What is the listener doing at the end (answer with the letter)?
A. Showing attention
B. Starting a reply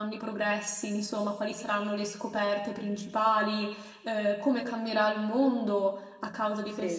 A